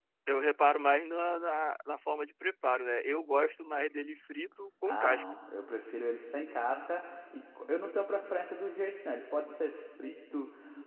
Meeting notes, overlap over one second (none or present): none